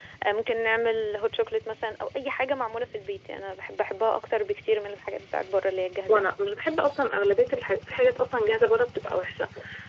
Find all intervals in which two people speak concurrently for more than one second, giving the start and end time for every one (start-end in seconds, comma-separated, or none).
none